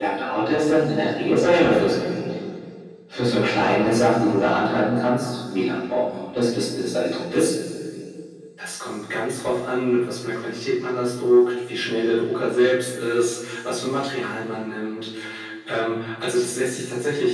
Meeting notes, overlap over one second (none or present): none